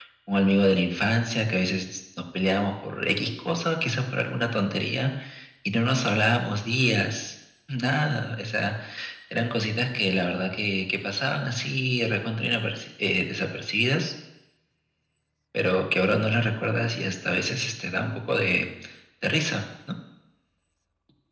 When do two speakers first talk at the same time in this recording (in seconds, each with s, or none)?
none